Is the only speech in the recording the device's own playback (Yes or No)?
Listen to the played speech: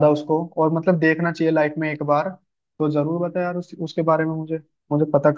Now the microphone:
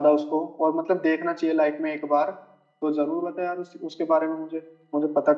Yes